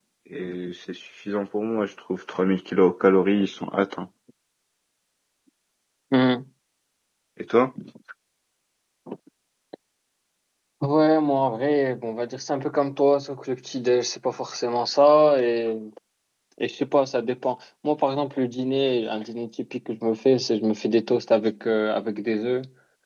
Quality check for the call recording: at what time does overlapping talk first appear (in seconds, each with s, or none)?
none